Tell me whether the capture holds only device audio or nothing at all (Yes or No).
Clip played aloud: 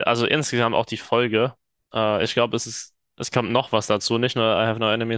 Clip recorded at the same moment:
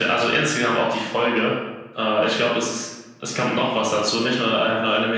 Yes